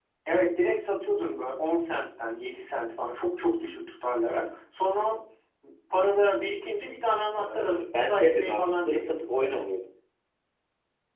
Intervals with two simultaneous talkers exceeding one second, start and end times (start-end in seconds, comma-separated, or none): 7.4-9.6